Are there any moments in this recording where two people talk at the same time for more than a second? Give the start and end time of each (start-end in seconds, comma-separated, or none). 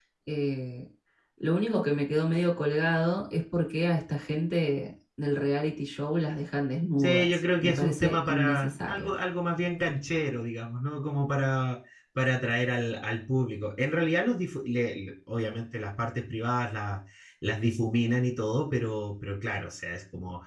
7.0-9.1